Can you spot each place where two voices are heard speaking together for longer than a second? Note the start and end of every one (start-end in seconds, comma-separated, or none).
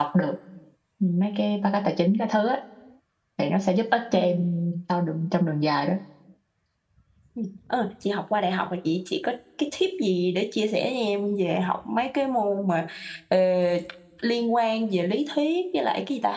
none